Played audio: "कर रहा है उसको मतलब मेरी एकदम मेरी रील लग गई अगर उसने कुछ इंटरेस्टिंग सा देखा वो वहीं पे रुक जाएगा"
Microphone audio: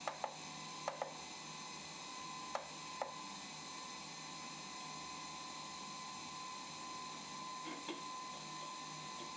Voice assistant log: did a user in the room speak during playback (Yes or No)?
No